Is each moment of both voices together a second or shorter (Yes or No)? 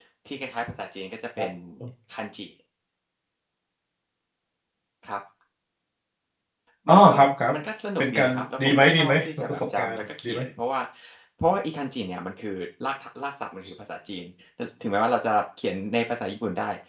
No